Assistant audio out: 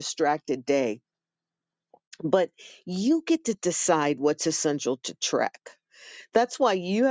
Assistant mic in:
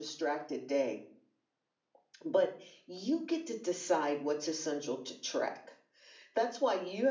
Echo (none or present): present